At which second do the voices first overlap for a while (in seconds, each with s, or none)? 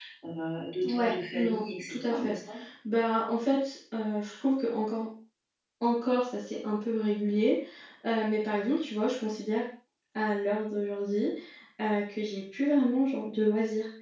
0.8 s